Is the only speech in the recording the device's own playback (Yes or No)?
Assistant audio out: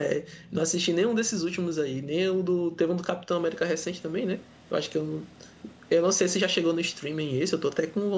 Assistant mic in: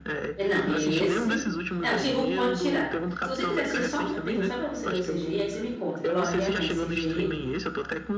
No